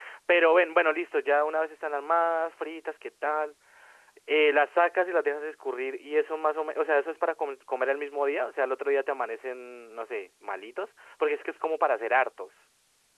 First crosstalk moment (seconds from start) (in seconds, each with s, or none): none